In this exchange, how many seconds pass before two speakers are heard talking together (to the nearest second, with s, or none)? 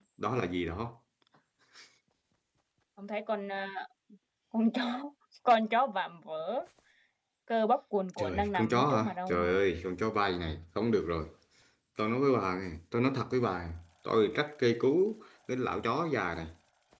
8 s